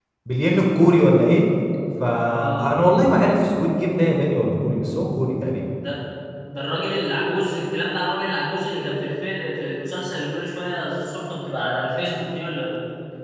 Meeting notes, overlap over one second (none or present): none